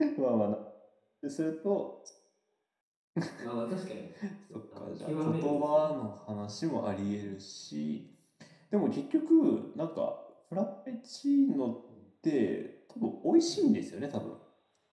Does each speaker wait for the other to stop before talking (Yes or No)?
No